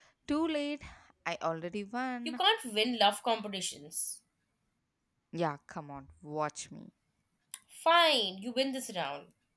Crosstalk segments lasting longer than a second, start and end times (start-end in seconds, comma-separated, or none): none